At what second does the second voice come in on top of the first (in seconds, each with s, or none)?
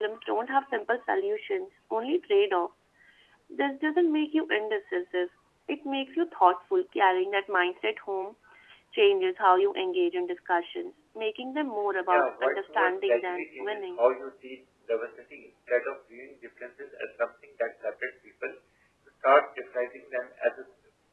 12.1 s